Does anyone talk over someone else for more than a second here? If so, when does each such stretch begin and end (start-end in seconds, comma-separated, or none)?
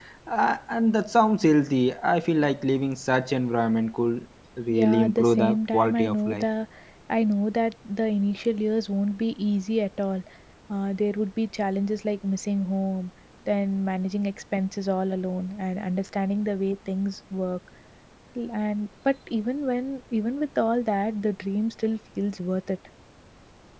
4.7-6.4